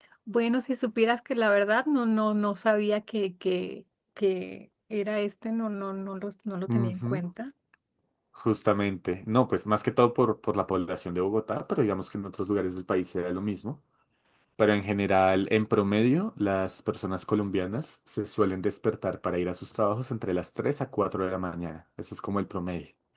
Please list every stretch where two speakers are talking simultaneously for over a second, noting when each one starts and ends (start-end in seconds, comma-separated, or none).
none